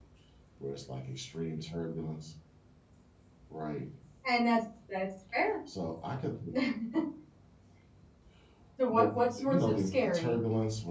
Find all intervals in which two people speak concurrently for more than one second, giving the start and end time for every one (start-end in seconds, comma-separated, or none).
8.9-10.4